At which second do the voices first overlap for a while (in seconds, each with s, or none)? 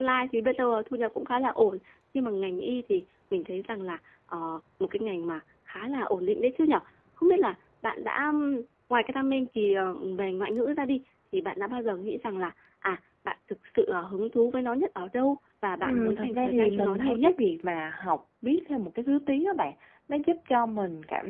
15.8 s